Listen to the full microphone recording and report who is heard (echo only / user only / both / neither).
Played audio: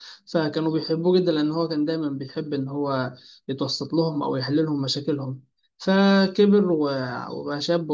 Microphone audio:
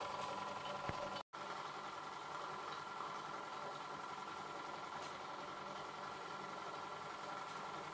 neither